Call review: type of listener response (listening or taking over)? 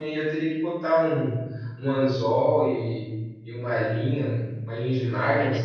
taking over